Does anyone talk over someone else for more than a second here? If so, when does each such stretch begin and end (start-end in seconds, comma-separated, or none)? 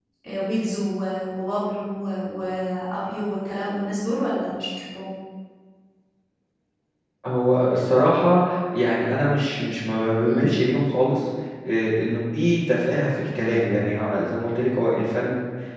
none